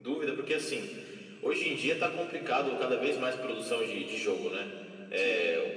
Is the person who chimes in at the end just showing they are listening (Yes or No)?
Yes